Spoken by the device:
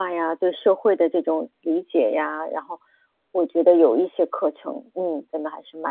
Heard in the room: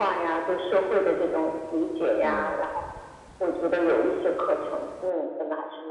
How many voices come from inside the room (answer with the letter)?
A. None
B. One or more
B